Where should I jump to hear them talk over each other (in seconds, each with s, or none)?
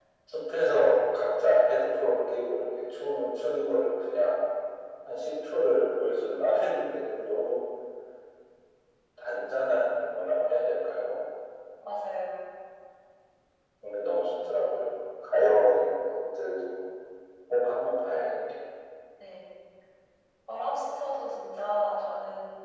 none